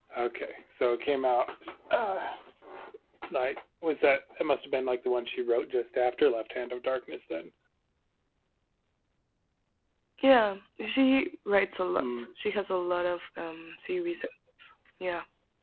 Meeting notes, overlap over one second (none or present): none